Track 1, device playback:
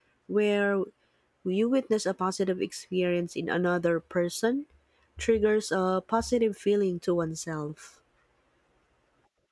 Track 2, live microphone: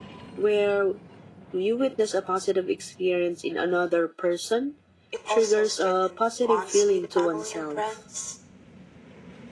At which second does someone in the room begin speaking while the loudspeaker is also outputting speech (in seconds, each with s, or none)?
5.1 s